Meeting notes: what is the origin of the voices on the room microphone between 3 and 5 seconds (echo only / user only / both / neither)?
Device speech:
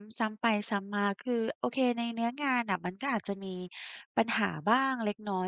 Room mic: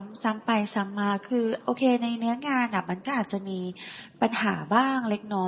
echo only